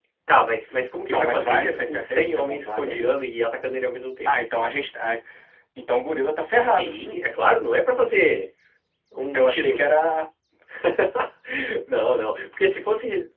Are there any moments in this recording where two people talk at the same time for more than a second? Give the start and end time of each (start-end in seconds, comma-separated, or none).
1.1-3.1